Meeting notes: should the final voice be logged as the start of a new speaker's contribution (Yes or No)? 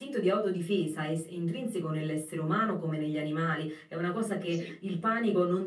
No